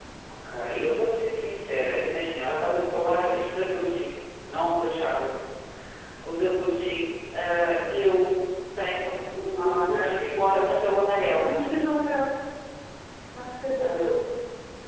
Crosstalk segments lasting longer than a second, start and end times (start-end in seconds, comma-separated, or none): 9.6-10.9